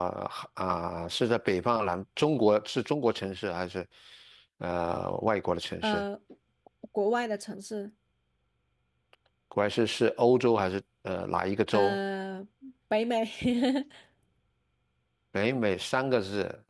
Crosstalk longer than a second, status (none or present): none